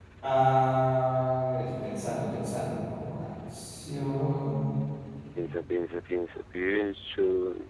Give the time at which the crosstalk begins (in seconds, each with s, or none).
none